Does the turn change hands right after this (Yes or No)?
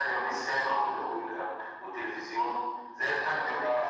No